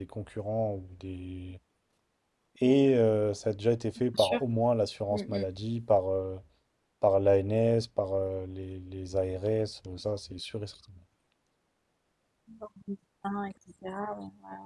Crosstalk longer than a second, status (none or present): none